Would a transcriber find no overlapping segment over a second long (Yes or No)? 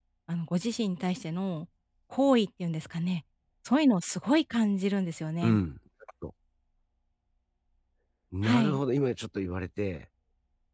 Yes